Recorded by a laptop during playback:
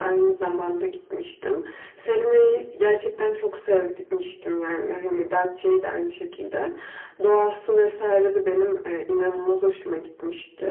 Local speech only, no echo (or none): none